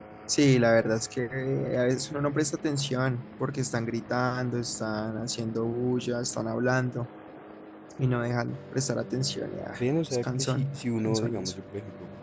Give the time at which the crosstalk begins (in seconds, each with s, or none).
10.2 s